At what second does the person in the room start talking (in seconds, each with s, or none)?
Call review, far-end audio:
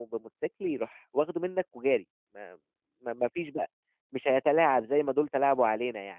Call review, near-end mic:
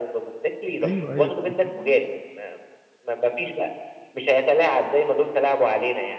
0.8 s